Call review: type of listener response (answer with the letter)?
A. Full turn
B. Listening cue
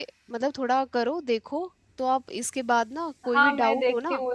A